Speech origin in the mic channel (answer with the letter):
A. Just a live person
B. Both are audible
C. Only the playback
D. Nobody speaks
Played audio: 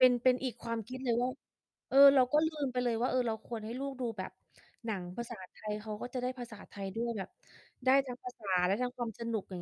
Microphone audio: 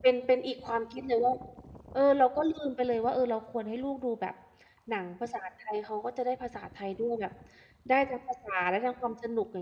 C